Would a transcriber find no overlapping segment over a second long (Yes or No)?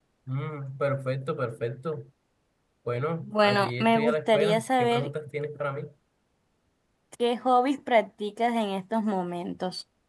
No